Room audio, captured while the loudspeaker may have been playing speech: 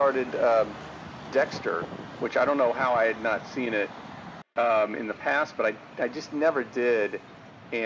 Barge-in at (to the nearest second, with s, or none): none